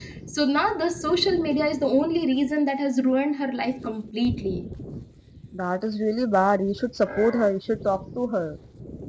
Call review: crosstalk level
none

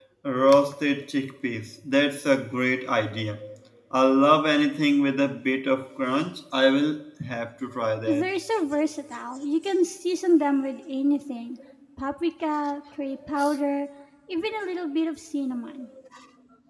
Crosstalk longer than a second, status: none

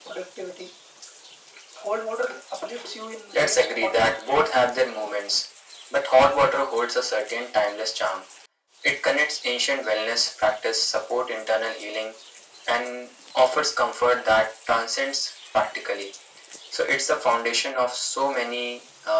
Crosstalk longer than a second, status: present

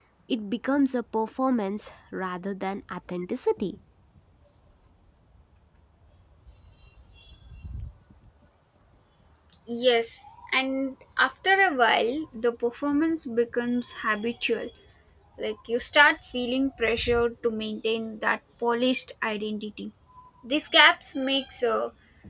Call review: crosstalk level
none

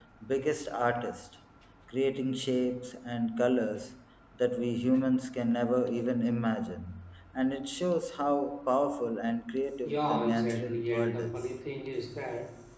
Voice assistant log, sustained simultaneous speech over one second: present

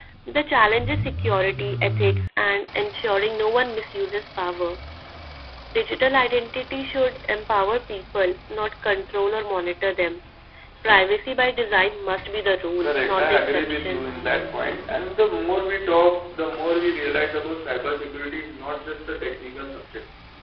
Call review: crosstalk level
present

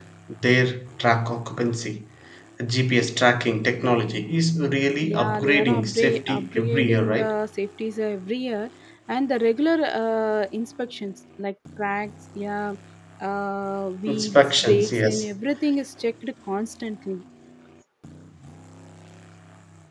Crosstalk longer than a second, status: present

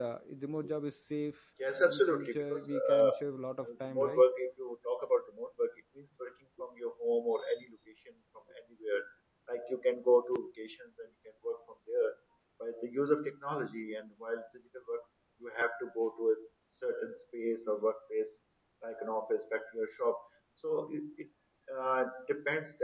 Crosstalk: present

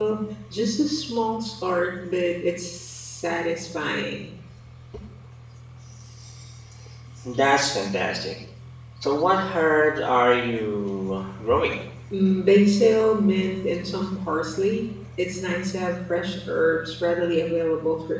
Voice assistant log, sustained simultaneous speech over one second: none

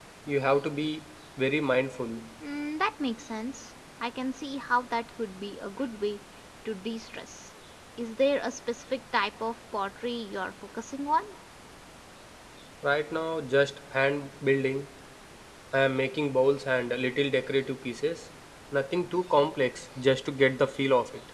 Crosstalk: none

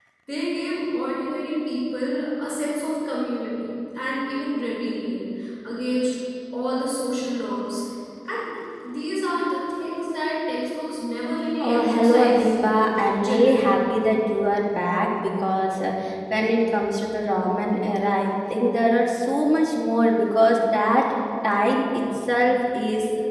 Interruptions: present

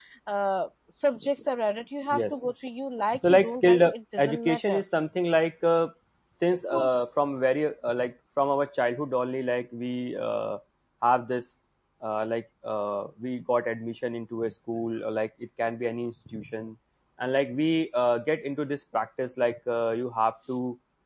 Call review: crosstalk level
present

